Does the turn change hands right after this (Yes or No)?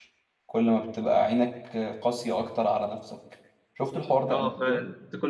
Yes